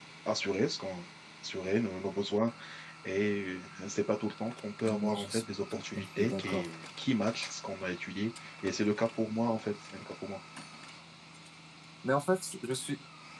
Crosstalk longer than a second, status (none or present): present